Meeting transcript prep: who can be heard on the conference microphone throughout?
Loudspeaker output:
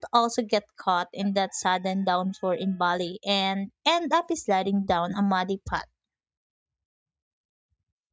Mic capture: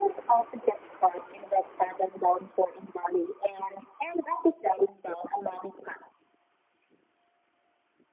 echo only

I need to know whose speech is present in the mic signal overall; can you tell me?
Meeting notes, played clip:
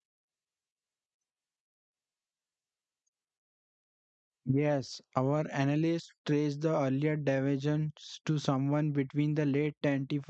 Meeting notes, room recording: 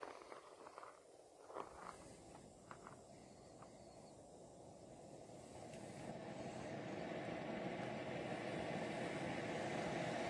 neither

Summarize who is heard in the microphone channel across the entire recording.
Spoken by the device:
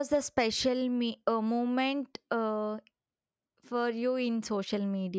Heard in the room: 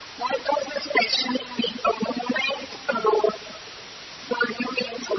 echo only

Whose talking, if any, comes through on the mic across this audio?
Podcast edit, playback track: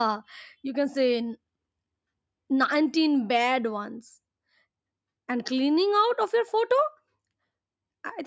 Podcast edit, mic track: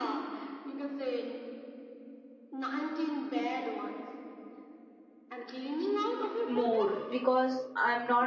both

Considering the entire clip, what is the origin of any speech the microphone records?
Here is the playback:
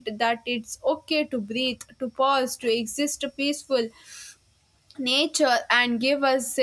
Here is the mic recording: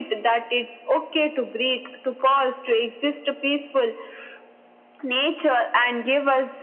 echo only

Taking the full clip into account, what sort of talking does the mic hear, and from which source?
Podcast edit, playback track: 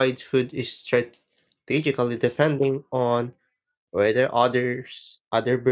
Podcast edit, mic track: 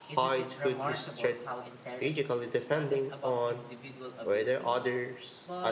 both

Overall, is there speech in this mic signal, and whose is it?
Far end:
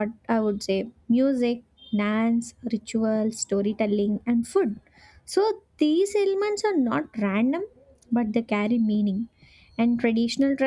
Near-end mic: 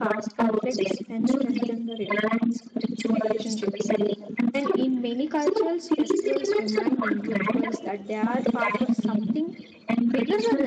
both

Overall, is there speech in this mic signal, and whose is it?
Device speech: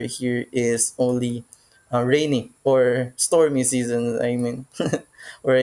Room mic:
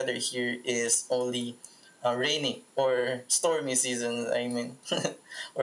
echo only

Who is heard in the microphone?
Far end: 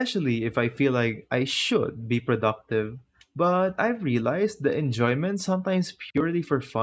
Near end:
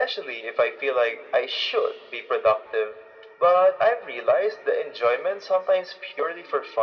echo only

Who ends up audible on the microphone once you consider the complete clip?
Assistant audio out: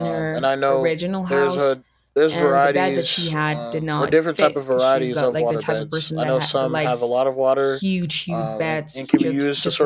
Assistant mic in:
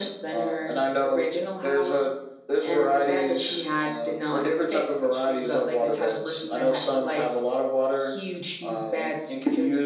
echo only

